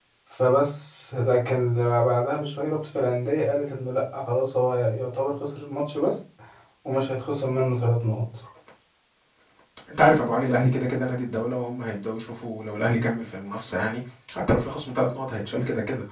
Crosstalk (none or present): none